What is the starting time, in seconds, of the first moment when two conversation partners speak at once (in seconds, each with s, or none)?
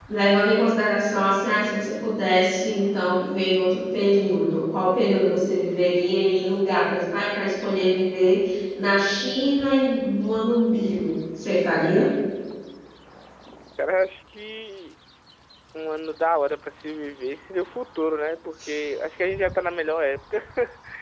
none